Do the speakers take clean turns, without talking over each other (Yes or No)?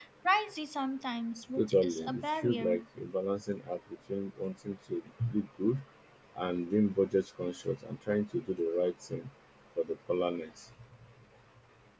No